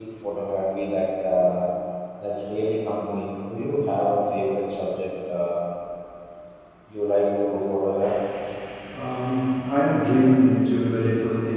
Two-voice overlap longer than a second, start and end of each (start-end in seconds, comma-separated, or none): none